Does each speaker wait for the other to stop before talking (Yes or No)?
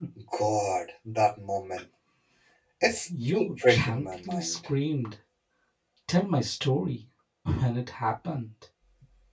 No